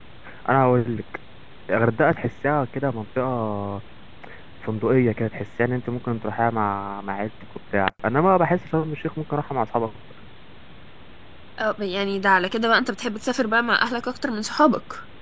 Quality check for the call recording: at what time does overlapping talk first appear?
none

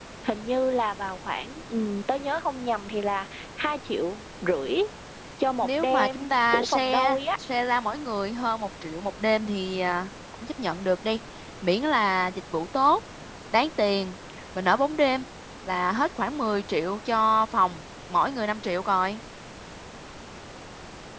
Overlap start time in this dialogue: 6 s

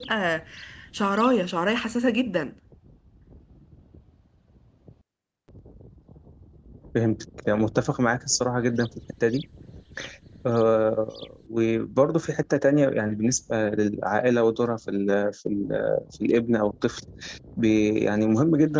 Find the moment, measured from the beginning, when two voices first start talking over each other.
none

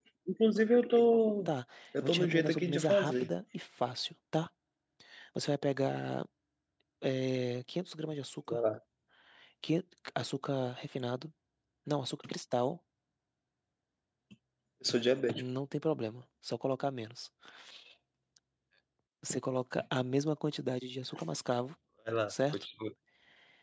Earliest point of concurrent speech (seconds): 2 s

